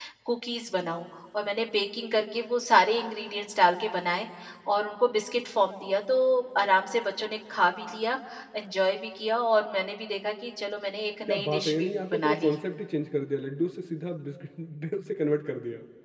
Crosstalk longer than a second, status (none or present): present